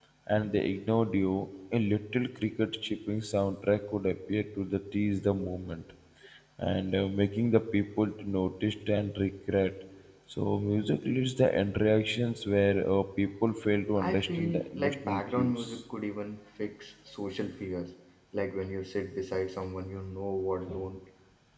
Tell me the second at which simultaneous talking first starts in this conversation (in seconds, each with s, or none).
14.0 s